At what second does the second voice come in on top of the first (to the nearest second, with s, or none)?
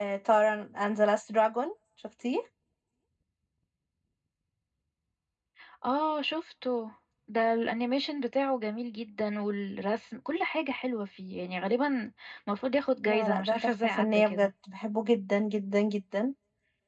13 s